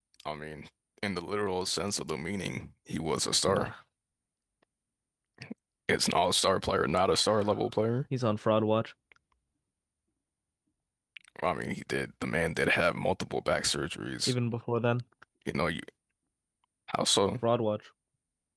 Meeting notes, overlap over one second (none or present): none